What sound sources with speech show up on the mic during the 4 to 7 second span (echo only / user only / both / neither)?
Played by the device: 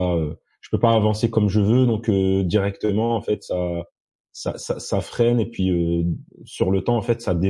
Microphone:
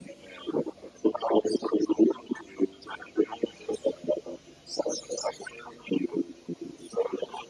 echo only